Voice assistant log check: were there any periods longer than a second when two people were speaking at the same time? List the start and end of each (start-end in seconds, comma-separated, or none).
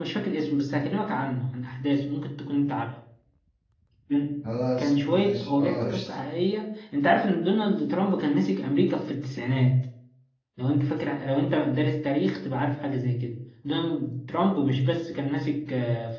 4.8-6.2